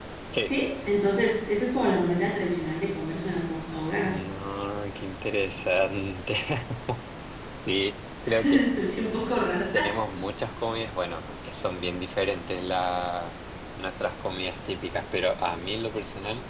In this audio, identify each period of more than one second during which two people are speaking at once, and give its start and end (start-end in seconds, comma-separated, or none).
none